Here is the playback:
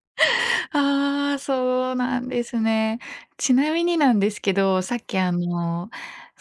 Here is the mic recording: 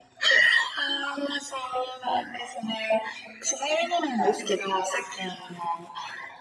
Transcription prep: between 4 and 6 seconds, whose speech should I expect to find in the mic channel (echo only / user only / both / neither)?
echo only